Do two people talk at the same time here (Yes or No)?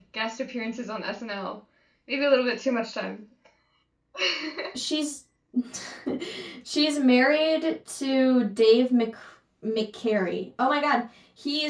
No